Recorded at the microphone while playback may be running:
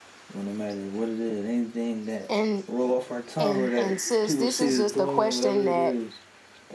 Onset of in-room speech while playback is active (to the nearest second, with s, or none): 2 s